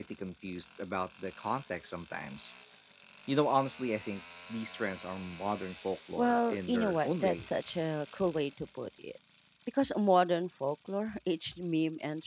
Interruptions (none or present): present